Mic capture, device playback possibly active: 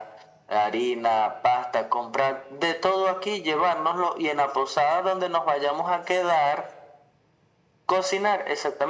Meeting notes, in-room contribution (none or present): none